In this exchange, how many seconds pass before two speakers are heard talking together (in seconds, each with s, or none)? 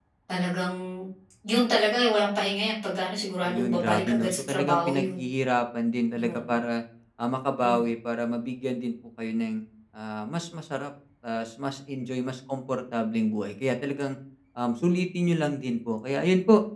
3.4 s